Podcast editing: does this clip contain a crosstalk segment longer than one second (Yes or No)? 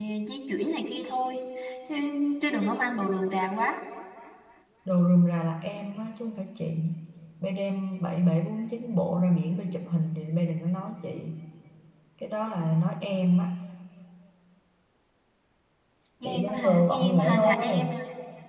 Yes